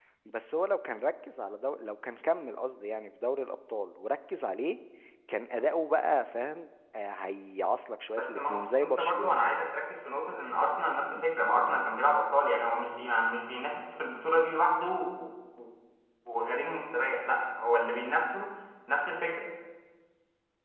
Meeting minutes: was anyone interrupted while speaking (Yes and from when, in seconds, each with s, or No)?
Yes, from 8.2 s